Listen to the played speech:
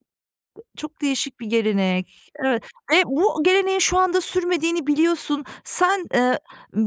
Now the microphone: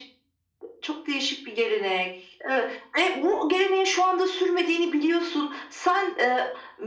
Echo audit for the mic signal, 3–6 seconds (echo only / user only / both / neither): echo only